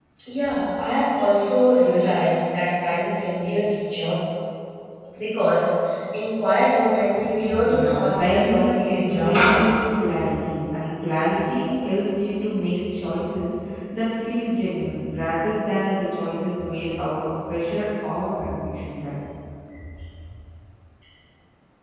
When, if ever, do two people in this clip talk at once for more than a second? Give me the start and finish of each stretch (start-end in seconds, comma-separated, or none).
7.6-9.6